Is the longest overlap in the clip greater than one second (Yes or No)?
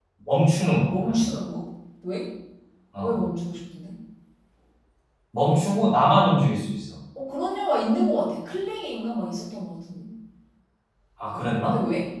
No